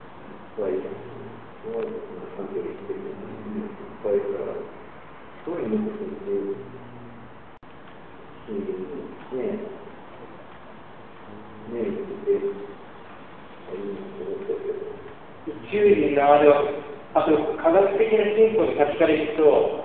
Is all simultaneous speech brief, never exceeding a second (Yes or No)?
Yes